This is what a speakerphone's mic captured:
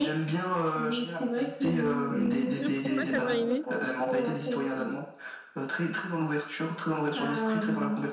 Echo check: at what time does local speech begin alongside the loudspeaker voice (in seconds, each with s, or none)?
2.6 s